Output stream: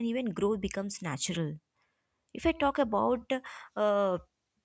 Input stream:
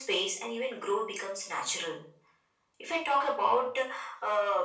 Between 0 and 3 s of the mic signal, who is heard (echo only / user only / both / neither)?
echo only